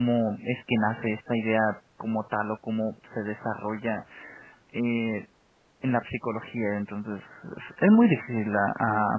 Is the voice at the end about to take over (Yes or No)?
Yes